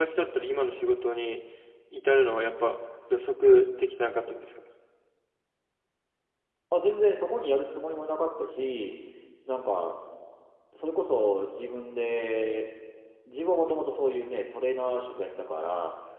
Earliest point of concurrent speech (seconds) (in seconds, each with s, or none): none